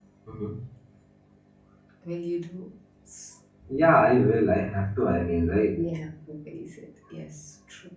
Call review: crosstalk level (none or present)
none